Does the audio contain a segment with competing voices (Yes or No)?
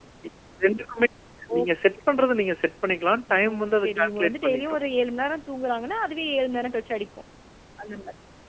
Yes